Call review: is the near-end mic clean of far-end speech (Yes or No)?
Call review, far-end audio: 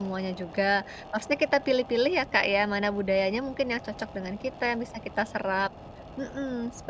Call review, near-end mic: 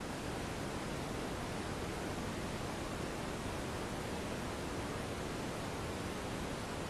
Yes